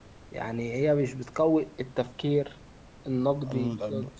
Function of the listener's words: taking over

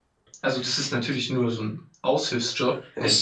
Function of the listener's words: listening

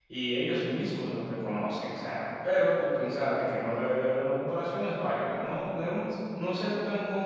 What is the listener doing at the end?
listening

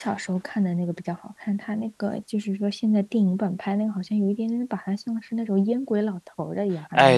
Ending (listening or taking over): taking over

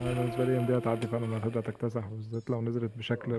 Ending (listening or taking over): listening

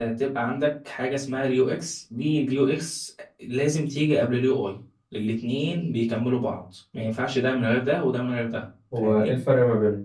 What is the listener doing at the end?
taking over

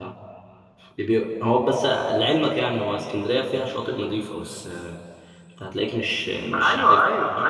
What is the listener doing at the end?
taking over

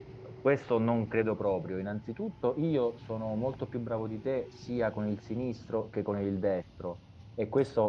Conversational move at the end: listening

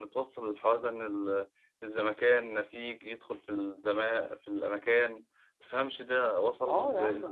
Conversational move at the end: taking over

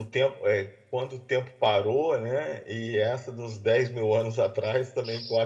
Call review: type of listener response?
listening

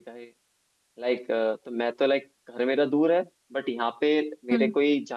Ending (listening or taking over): listening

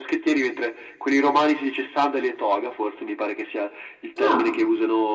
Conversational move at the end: listening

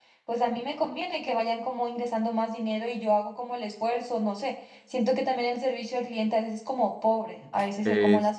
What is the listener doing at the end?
taking over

